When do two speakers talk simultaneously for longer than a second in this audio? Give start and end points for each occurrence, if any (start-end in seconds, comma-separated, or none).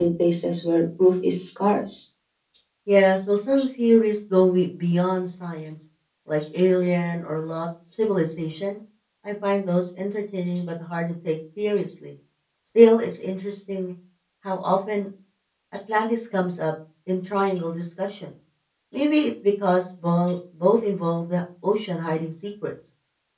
none